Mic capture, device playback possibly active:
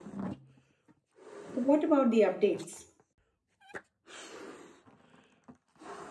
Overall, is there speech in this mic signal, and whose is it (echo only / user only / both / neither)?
user only